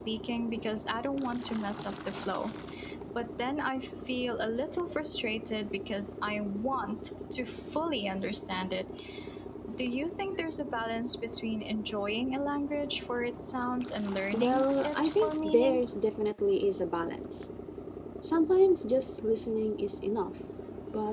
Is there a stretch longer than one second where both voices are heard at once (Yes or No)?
Yes